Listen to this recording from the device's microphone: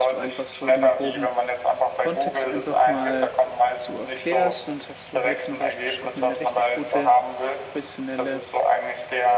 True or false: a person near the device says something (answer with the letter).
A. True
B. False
A